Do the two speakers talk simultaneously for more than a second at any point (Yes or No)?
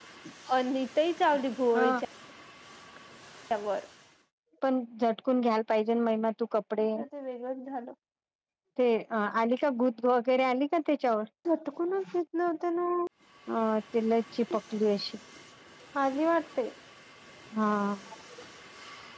No